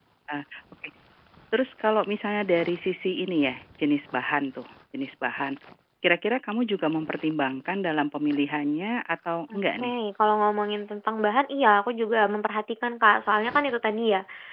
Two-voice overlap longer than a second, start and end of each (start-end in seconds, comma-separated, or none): none